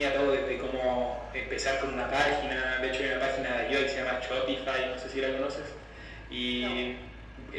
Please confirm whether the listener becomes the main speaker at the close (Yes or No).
No